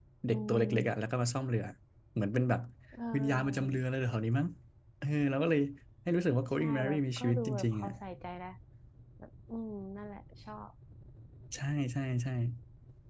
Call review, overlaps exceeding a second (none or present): present